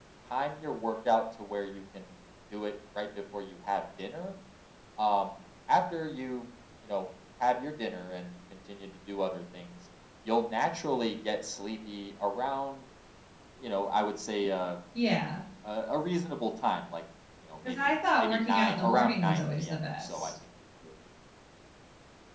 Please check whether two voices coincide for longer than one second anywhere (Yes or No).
Yes